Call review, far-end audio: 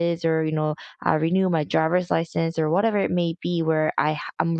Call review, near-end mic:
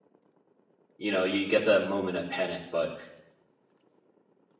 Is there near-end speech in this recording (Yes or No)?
Yes